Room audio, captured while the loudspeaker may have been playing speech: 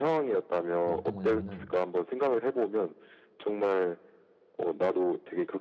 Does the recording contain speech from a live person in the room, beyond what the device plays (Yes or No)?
Yes